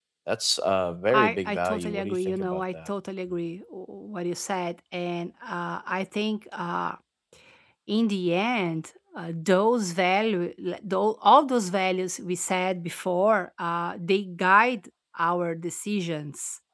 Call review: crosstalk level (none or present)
present